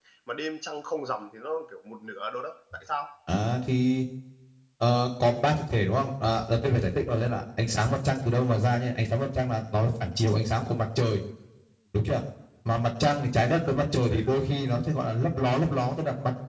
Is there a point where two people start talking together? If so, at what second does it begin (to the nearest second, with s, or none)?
none